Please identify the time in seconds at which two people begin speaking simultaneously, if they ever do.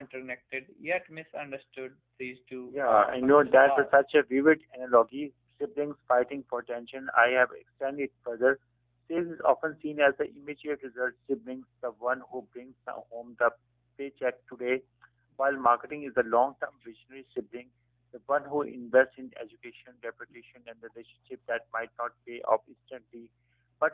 2.7 s

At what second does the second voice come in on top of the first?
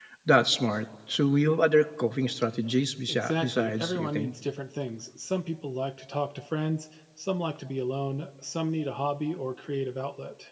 3.1 s

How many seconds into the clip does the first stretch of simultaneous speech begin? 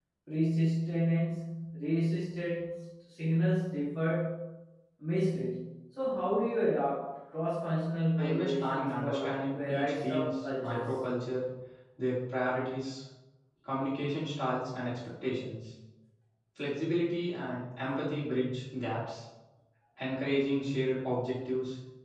8.2 s

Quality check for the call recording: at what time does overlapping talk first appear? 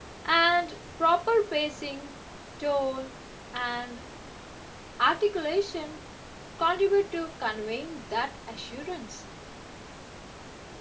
none

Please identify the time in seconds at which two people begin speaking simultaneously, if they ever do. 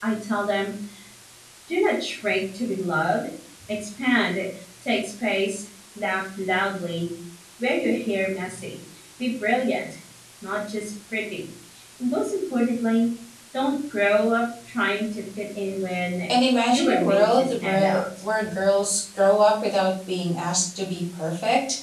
16.7 s

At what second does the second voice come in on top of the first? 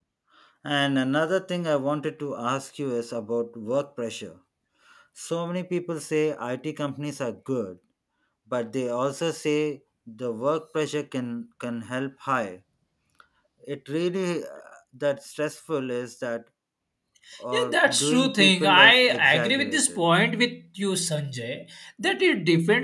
17.5 s

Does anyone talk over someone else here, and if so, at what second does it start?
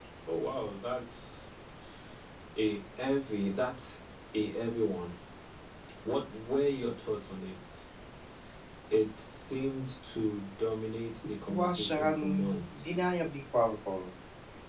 11.5 s

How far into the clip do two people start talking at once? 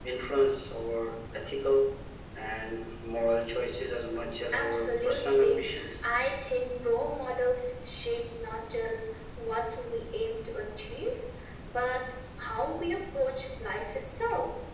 4.5 s

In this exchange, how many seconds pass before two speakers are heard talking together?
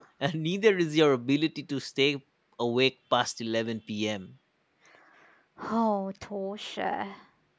none

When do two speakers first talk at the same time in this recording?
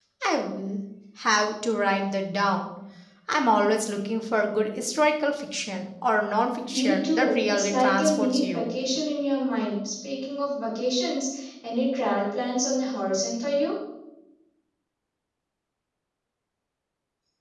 6.7 s

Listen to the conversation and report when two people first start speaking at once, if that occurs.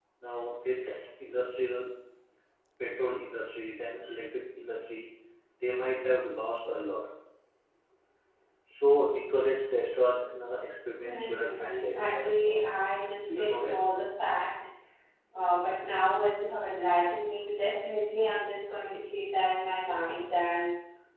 11.1 s

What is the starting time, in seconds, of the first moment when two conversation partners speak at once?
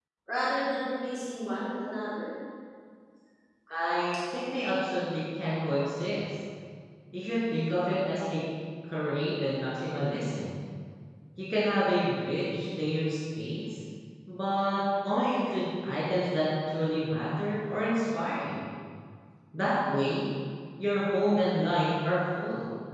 none

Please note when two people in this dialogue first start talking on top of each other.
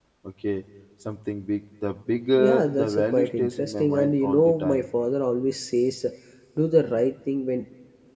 2.4 s

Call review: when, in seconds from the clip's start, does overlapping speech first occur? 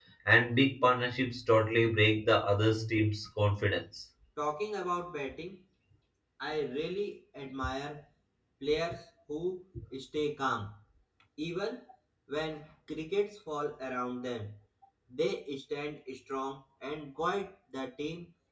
none

